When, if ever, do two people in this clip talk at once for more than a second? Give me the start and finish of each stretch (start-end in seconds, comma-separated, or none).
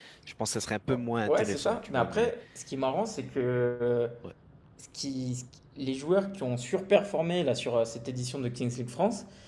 0.9-2.3